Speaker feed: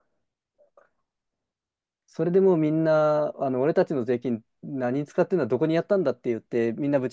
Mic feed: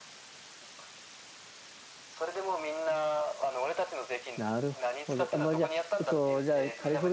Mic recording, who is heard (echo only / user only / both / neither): both